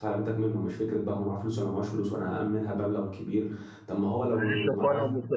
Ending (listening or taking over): taking over